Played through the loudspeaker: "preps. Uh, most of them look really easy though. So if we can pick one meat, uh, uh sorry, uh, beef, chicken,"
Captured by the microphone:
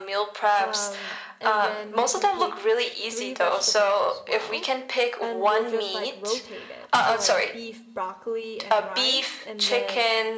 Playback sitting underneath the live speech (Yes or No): No